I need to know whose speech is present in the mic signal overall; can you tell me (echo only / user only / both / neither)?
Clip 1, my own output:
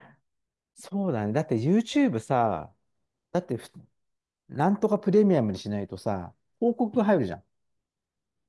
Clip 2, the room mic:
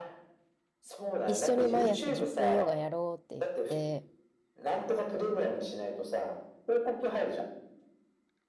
both